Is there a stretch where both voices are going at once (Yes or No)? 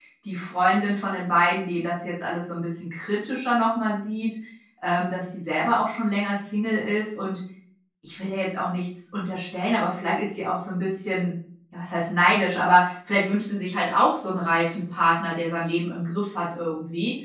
No